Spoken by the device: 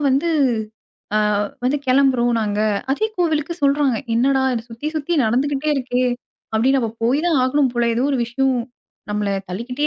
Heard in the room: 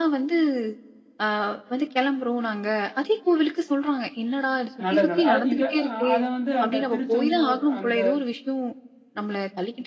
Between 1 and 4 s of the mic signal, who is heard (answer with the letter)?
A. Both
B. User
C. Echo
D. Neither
C